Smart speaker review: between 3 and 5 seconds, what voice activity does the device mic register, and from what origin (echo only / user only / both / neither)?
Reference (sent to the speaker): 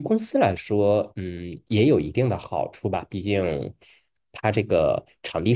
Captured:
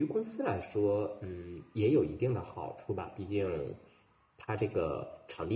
echo only